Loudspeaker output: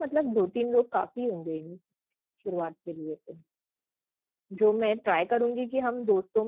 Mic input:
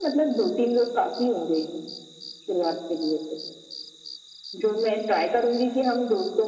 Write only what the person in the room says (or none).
none